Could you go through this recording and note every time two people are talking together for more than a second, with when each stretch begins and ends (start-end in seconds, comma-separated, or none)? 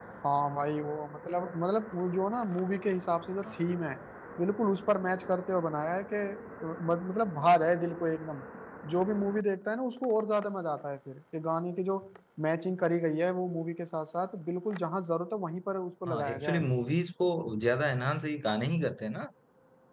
none